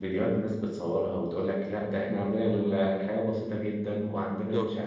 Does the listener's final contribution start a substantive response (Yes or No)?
No